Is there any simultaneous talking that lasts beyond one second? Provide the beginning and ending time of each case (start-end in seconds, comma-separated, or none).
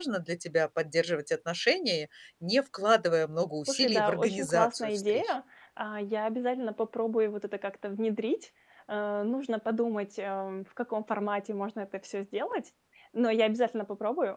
3.7-5.3